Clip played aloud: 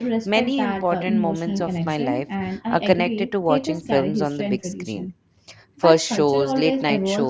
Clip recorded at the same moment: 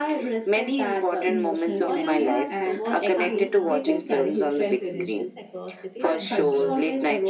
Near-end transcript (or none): Online wa- watch parties now create uh, shared experiences across cities and countries.